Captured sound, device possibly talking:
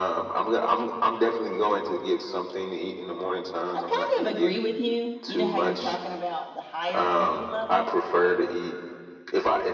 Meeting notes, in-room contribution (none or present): present